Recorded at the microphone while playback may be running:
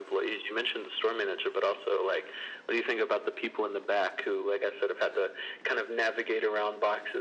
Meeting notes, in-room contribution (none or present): none